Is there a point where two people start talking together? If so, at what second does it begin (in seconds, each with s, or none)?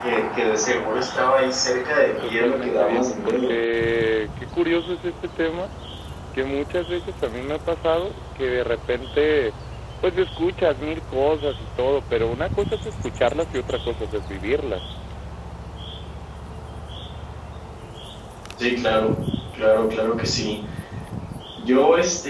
1.8 s